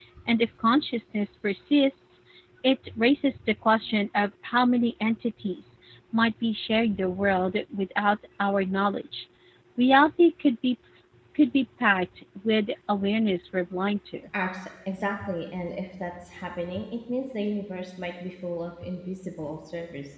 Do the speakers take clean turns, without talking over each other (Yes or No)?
Yes